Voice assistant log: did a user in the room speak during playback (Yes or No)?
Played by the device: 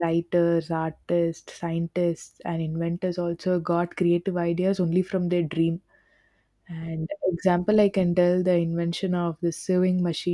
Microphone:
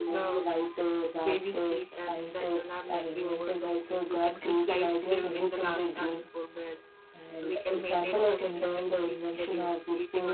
Yes